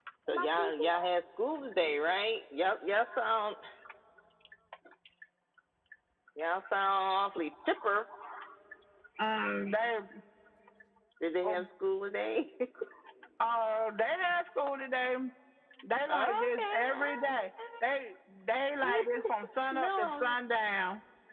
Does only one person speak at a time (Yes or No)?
No